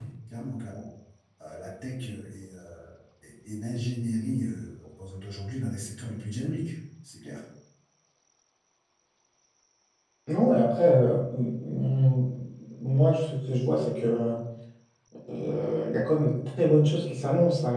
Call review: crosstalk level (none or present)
none